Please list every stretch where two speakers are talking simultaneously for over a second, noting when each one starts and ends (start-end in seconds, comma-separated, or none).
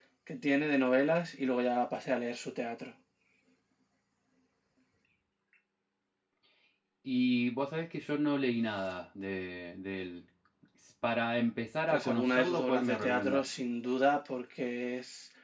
11.9-13.4